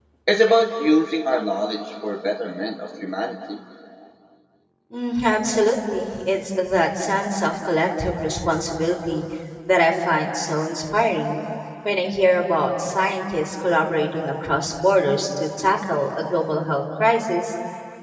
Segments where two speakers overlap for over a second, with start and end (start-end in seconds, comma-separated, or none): none